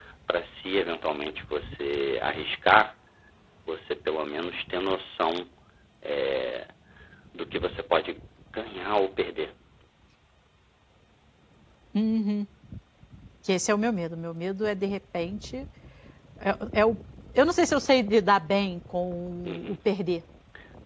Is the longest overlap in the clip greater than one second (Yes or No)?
No